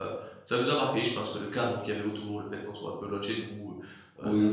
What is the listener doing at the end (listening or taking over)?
taking over